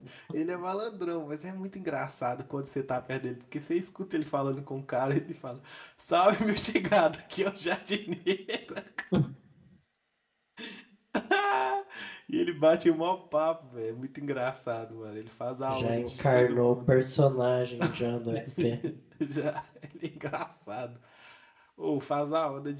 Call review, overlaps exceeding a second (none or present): present